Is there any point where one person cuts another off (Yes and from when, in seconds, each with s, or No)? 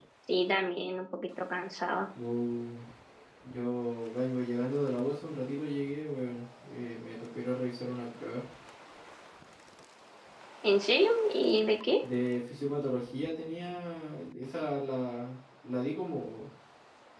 No